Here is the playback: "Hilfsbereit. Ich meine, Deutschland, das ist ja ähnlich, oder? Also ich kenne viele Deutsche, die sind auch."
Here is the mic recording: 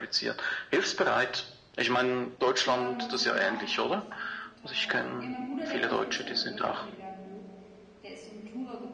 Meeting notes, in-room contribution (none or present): present